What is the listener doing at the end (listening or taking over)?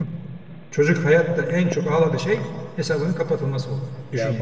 taking over